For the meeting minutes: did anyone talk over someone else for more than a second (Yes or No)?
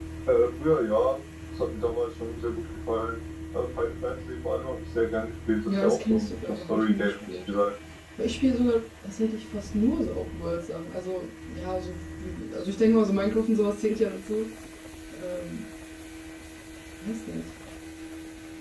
Yes